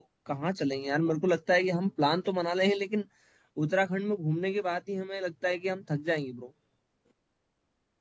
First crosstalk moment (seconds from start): none

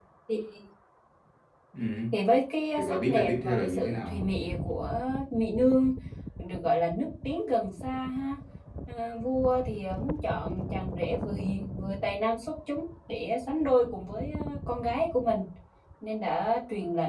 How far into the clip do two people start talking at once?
3 s

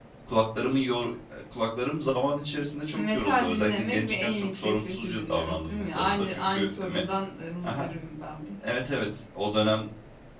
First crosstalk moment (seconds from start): 3 s

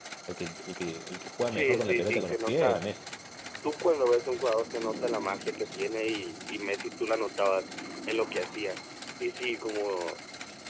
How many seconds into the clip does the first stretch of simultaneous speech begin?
1 s

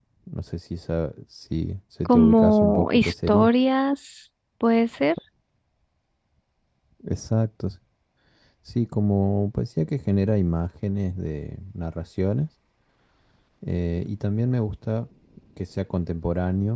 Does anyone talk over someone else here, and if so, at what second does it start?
2 s

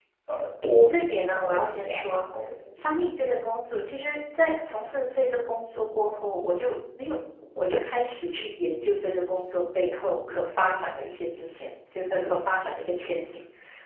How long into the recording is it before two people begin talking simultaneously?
1 s

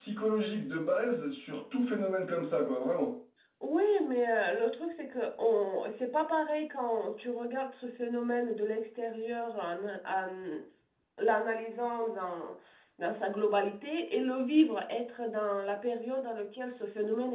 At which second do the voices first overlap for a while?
none

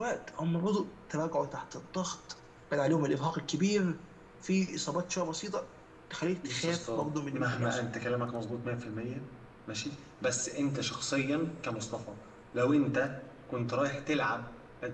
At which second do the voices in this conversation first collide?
6 s

